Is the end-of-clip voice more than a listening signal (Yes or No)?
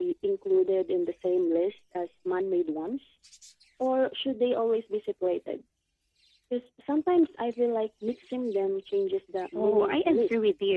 Yes